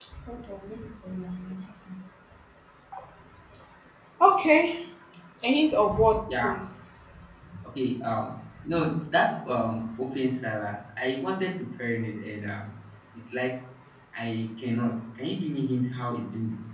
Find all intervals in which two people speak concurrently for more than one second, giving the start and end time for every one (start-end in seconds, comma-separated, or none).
none